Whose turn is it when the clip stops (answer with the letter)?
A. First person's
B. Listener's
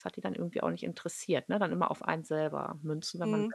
B